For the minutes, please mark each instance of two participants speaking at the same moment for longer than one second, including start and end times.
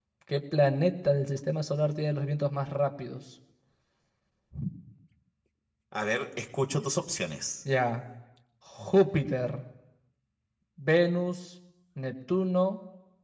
none

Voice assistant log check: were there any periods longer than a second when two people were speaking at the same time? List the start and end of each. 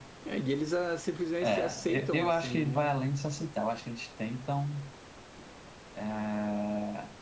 1.4-3.0

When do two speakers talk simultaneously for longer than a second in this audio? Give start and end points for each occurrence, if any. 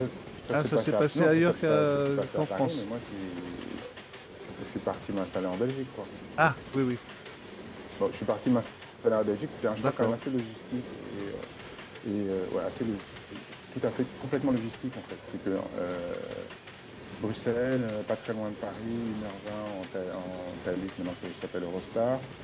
0.5-2.8

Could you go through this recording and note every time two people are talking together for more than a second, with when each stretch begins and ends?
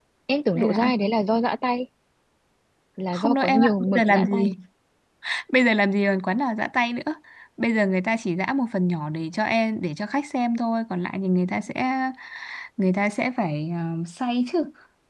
3.1-4.4

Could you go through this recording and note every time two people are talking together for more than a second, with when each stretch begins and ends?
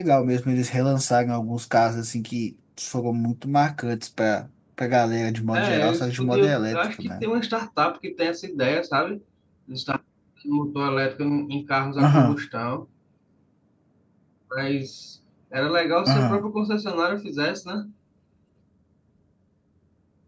5.5-7.3

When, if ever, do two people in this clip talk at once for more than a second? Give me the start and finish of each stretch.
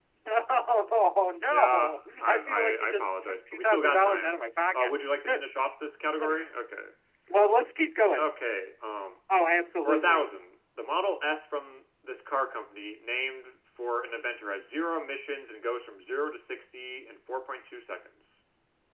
1.5-4.3

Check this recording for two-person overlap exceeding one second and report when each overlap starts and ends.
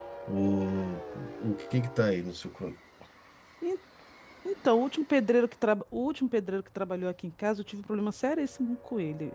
none

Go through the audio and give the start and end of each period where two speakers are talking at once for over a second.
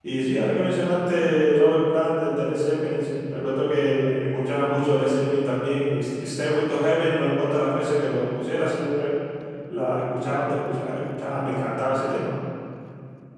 none

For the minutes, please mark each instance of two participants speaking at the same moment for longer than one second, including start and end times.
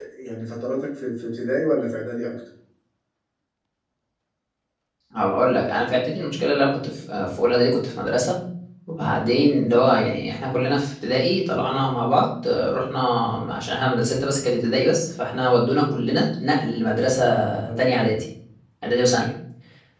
none

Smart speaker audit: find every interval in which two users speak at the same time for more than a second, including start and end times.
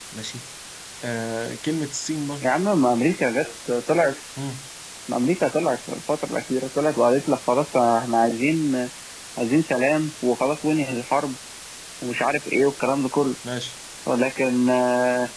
none

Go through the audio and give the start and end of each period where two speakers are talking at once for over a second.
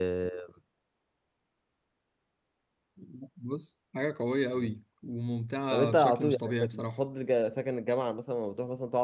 5.7-7.0

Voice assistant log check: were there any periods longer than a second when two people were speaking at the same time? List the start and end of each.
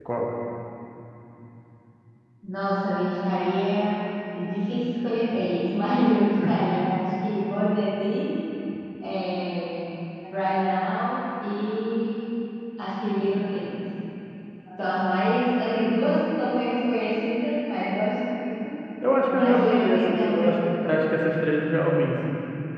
19.3-20.5

